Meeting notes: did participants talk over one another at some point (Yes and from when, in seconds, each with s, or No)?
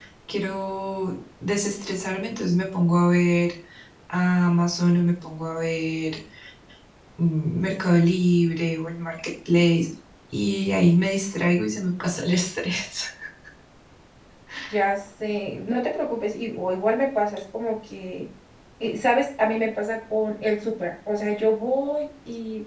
No